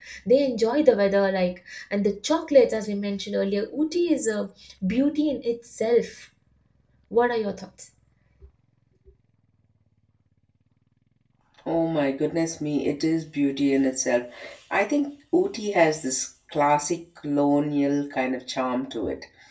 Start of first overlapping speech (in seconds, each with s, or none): none